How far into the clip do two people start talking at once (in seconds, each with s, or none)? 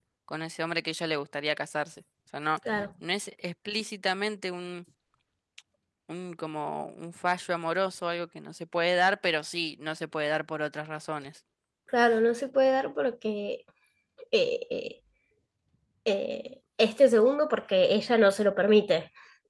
none